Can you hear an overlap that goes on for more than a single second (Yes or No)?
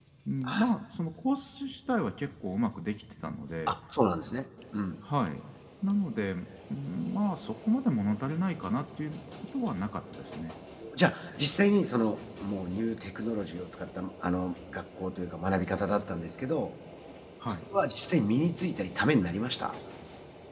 No